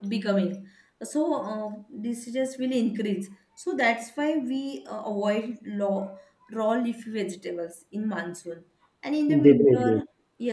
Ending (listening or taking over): listening